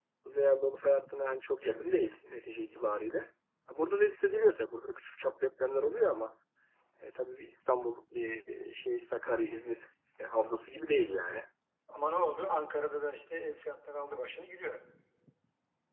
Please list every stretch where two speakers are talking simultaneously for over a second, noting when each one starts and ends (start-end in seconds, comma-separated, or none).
none